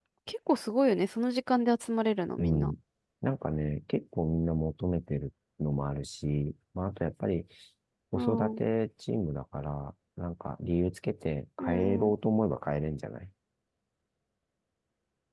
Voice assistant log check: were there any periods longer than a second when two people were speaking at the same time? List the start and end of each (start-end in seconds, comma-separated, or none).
none